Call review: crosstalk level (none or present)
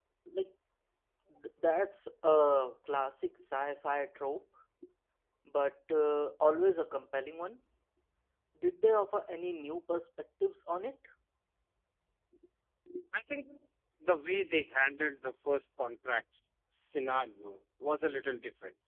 none